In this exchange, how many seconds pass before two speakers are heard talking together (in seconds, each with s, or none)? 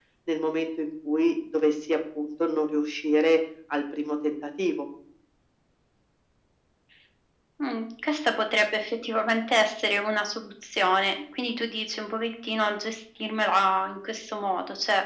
none